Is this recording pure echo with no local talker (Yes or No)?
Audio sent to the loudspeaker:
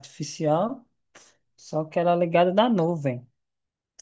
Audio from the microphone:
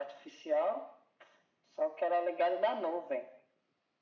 Yes